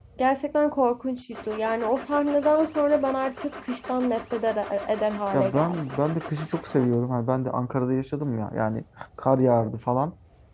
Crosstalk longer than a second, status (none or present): none